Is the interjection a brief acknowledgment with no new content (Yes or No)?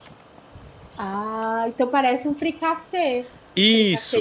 No